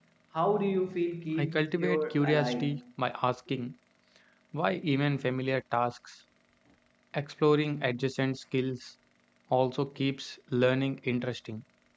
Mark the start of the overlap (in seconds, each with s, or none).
1.4 s